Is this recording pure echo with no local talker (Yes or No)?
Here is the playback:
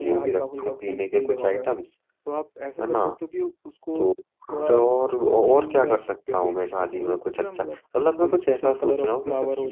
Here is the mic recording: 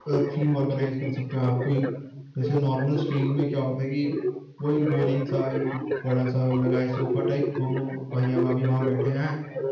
No